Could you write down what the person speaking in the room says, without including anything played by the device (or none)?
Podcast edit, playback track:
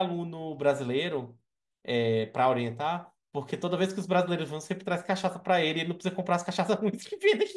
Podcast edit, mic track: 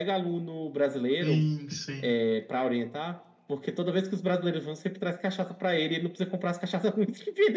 Sim, sim.